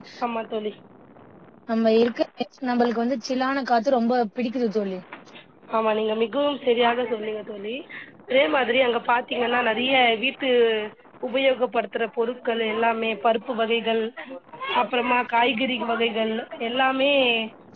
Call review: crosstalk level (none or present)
none